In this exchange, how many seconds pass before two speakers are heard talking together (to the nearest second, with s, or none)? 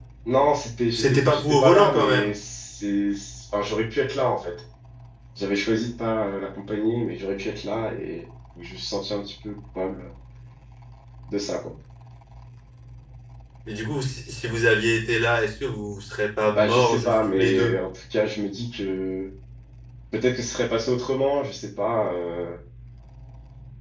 1 s